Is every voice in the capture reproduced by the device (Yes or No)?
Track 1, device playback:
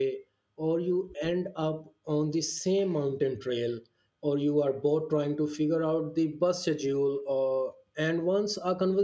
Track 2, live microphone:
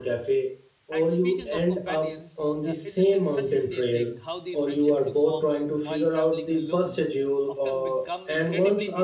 No